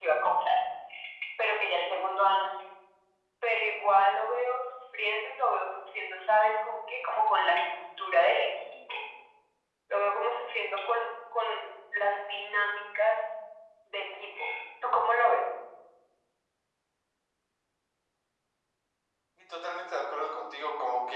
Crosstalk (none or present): none